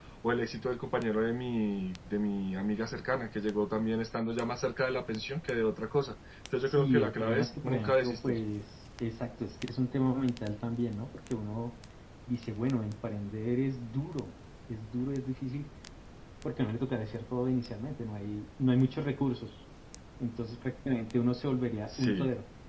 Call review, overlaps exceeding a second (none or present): present